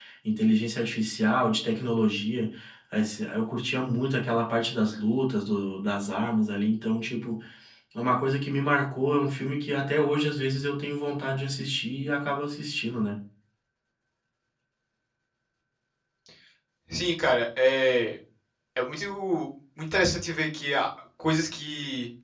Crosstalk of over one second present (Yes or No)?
No